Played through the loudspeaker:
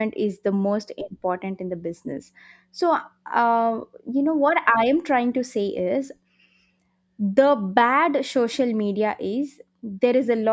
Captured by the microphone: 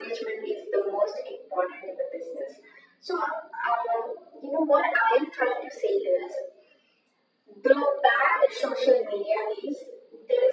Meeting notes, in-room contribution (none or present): none